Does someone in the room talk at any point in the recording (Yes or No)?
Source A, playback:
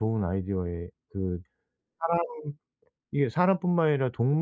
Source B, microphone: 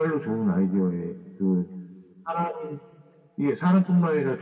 No